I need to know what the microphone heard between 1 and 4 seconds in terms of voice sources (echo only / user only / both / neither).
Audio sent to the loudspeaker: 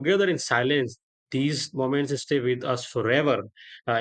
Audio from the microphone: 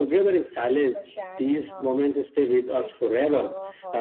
both